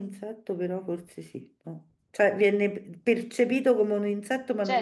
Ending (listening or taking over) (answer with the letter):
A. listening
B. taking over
B